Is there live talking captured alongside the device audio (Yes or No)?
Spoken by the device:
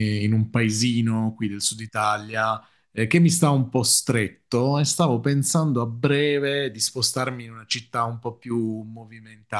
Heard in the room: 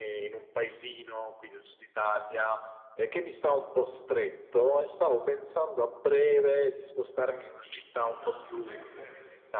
Yes